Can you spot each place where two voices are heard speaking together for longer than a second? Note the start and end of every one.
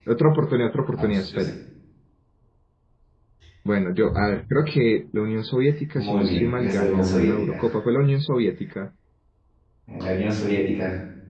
6.0-7.6

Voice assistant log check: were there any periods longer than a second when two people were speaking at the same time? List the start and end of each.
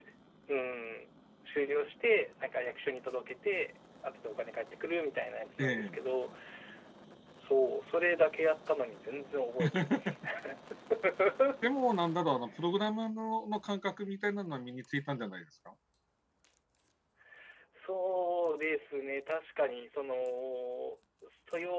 none

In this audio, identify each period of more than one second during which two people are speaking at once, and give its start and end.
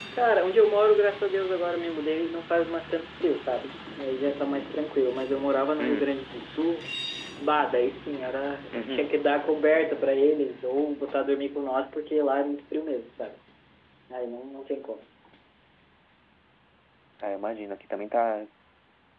none

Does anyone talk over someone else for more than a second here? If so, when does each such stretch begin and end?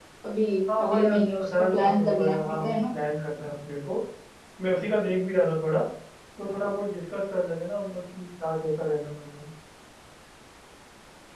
0.8-2.8

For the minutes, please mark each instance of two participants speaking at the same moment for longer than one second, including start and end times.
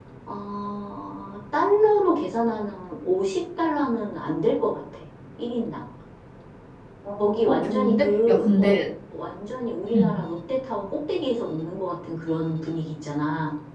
7.2-8.7

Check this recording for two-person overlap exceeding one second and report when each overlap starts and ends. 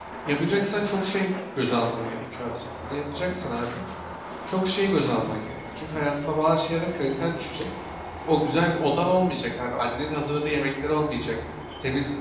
none

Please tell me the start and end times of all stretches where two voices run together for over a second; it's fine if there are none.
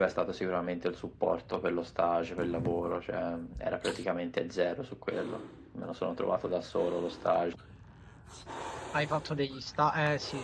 none

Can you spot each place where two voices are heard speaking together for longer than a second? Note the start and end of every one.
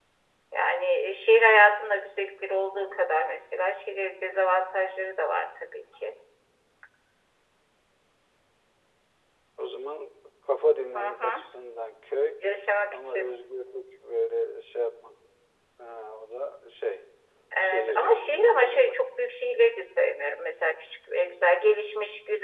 17.7-19.0

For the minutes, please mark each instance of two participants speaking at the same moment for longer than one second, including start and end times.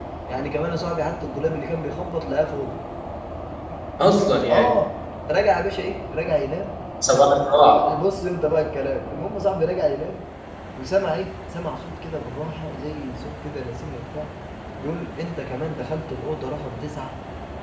none

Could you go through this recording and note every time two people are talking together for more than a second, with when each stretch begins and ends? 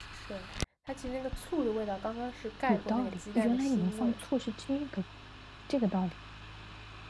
2.7-4.2

